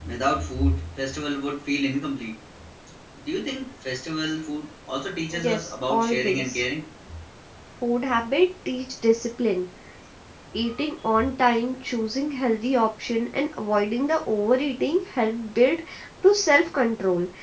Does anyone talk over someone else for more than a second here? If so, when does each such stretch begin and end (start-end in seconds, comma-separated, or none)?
5.4-6.6